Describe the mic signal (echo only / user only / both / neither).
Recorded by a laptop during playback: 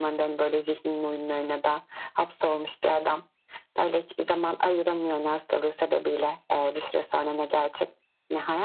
echo only